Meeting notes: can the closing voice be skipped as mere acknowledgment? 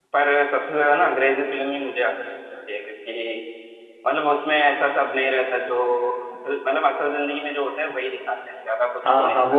No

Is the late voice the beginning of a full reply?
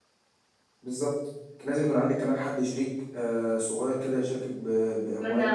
Yes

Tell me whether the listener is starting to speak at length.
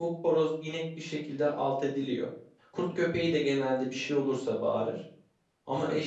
No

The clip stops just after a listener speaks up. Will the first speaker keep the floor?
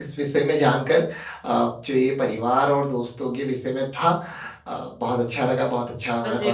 Yes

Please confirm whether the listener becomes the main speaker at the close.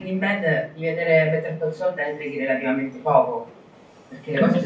Yes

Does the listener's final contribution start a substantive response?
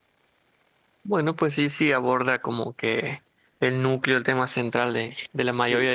No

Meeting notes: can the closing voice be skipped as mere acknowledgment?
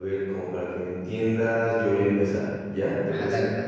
No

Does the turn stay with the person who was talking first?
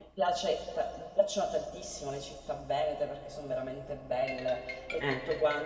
Yes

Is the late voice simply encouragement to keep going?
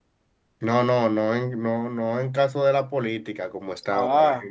Yes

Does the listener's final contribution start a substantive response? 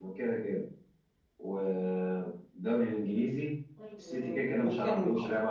Yes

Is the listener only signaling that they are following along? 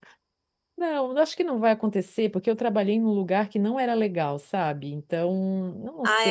No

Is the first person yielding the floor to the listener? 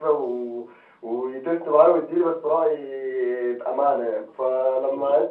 No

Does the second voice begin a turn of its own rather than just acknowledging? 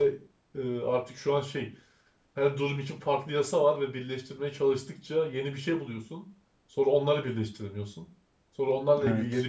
No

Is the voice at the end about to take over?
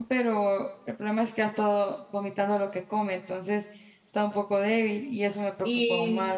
Yes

